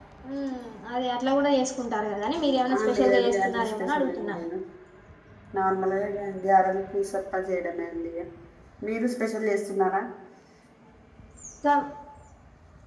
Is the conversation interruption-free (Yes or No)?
No